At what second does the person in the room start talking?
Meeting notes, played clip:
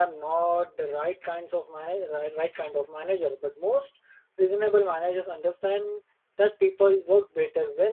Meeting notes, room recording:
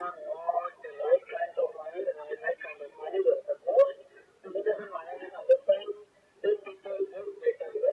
none

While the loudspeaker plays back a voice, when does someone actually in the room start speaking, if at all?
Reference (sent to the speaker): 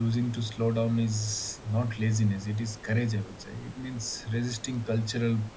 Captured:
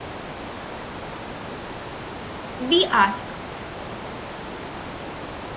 2.6 s

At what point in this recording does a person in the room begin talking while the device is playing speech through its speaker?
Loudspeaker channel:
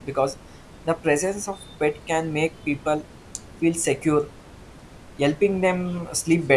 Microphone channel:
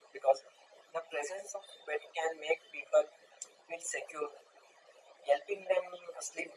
none

